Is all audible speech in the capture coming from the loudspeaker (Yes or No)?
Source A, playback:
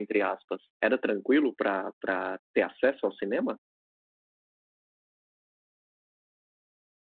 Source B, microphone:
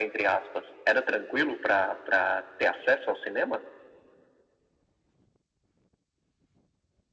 Yes